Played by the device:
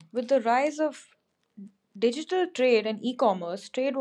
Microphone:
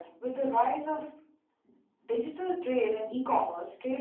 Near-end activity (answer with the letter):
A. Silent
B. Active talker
A